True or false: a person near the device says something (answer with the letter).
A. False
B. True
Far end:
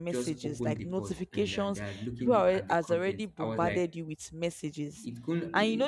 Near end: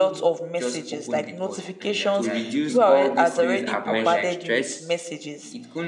B